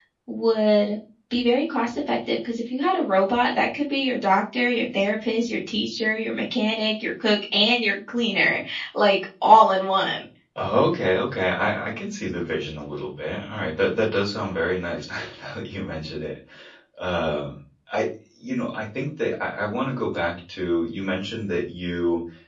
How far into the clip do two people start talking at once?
none

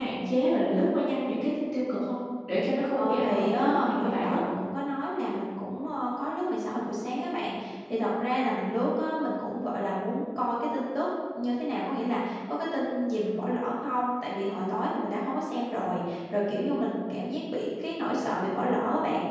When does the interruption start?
2.9 s

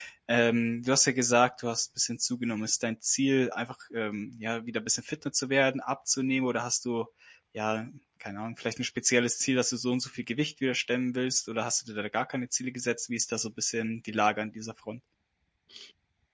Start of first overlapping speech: none

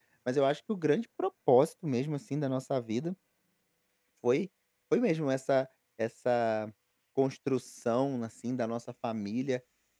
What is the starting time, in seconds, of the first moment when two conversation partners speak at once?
none

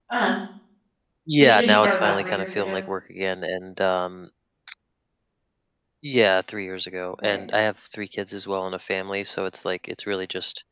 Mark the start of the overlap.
1.4 s

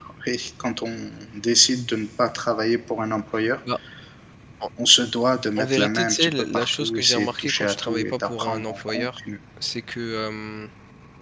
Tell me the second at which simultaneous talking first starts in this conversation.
5.6 s

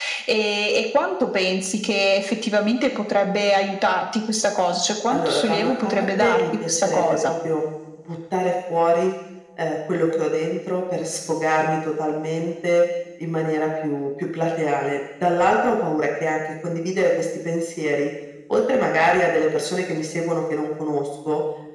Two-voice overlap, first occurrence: 5.1 s

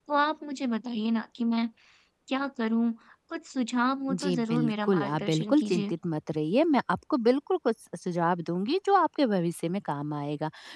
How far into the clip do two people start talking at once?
4.1 s

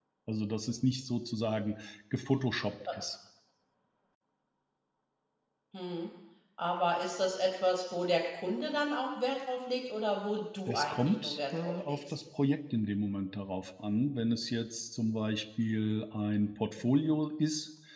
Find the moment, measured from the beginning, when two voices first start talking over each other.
10.7 s

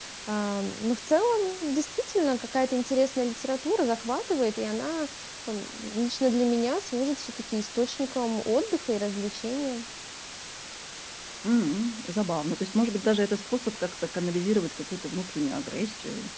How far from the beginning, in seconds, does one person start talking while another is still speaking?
none

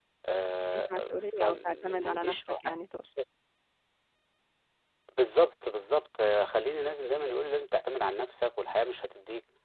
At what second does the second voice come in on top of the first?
0.7 s

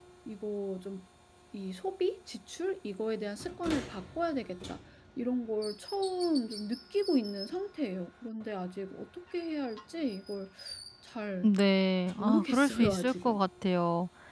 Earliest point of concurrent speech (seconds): 12.2 s

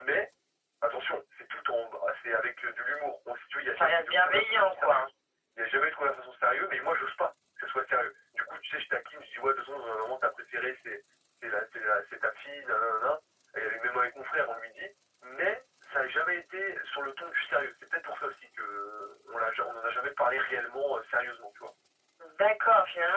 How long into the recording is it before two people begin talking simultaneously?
3.7 s

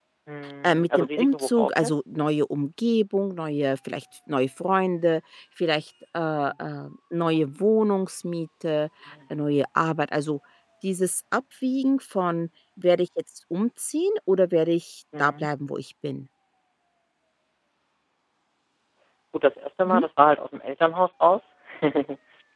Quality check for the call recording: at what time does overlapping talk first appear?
0.6 s

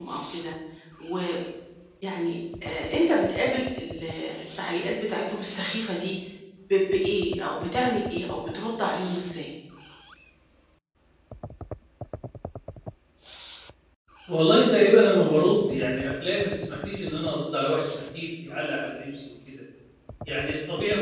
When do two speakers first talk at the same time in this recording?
none

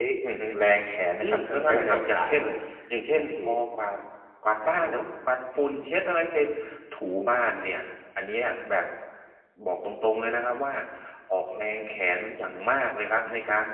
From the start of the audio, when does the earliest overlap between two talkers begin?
1.2 s

